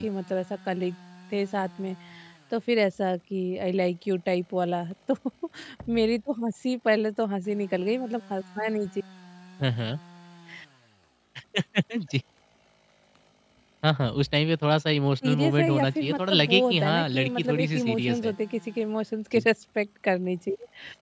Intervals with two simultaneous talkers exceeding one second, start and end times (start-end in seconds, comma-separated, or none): 15.2-18.3